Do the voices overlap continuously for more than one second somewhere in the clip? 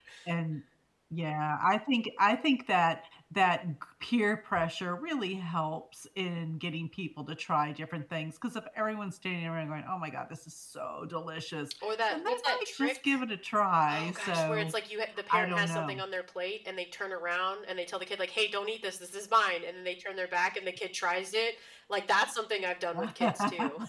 Yes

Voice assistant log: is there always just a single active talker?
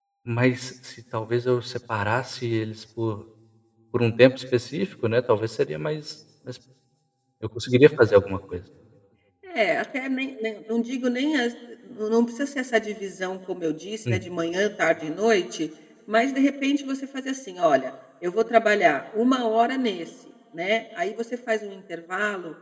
Yes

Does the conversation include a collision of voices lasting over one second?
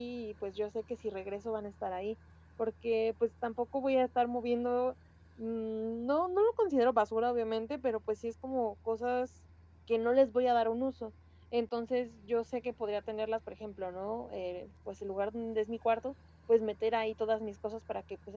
No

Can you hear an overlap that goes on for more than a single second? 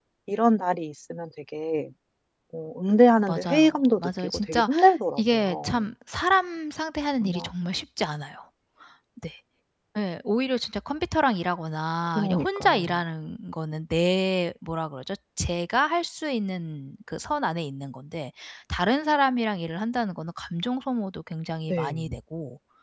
Yes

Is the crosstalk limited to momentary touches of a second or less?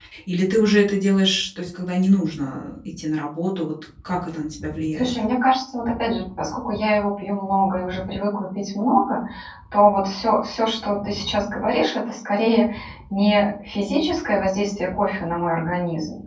Yes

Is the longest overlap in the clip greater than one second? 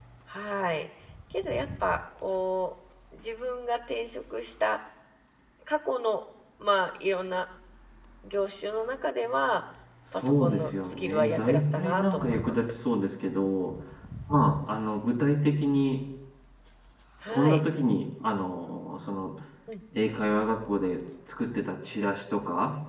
Yes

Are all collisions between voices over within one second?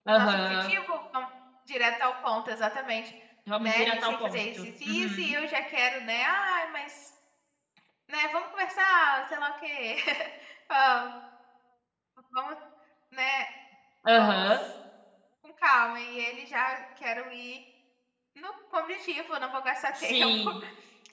No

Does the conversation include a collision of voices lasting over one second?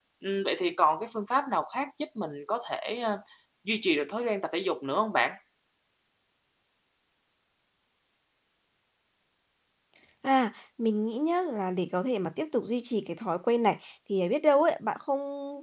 No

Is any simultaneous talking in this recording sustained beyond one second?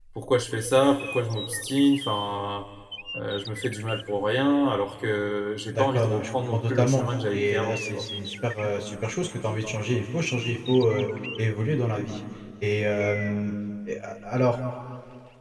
Yes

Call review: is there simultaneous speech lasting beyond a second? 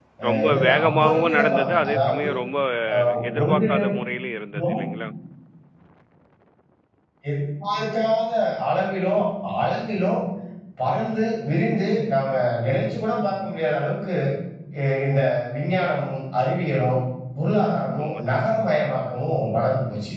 Yes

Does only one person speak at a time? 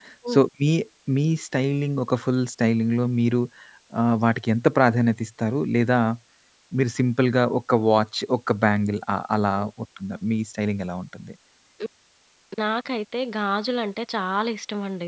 Yes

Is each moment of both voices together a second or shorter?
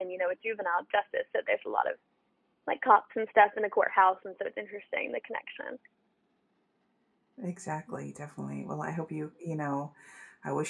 Yes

